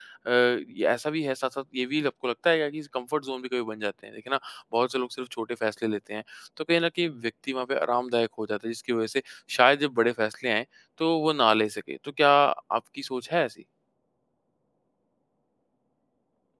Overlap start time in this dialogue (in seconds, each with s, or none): none